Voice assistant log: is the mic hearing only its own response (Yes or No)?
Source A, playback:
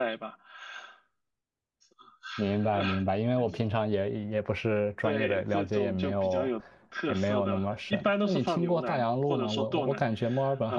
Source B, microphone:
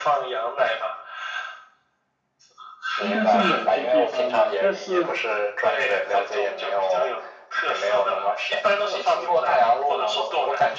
No